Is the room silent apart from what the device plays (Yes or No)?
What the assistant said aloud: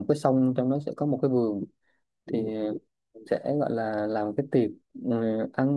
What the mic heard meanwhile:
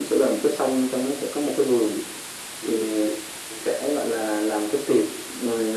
Yes